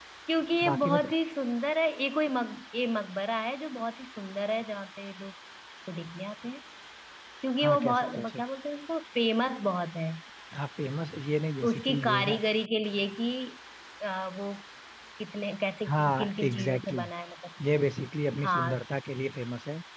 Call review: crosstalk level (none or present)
present